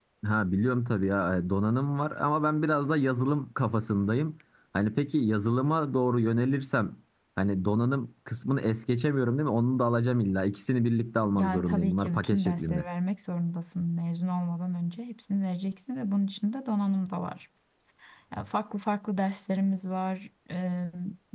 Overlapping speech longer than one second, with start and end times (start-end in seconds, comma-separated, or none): 11.3-12.8